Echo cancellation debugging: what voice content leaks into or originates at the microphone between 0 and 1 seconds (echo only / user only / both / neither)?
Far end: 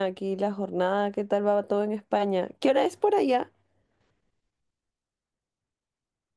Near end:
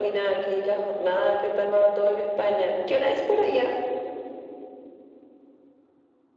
echo only